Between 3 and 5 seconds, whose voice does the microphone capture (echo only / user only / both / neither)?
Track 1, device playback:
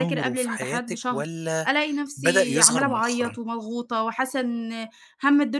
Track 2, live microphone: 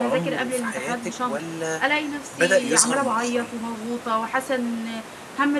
echo only